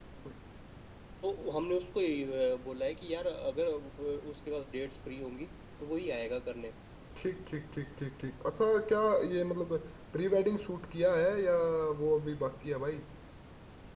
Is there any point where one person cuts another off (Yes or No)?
No